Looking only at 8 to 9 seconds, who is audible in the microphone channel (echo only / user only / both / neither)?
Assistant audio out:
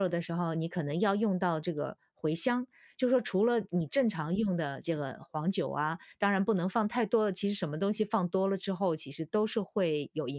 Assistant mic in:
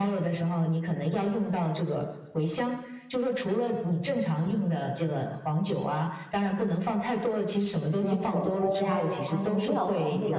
both